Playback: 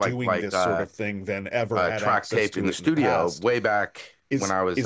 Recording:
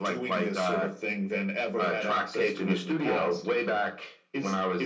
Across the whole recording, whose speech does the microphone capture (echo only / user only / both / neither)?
echo only